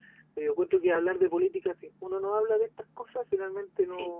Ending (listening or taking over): listening